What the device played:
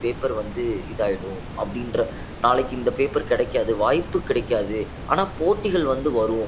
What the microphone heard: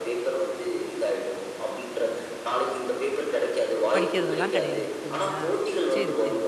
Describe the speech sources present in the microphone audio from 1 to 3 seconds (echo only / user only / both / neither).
echo only